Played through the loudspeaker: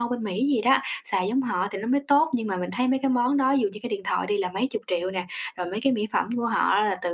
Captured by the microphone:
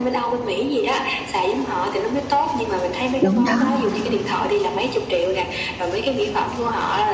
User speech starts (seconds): 3.2 s

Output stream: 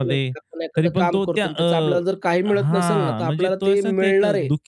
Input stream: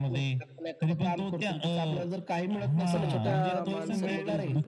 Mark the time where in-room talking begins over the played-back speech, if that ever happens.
2.9 s

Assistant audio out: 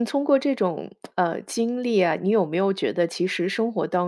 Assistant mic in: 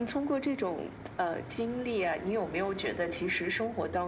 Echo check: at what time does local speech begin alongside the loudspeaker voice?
none

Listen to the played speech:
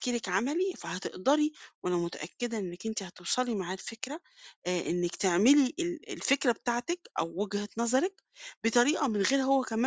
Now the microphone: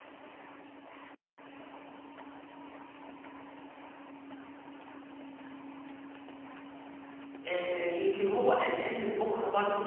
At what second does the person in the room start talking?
7.5 s

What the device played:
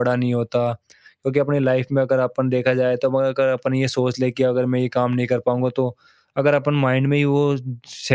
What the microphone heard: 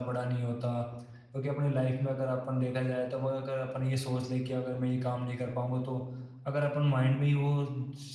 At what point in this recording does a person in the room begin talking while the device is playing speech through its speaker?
none

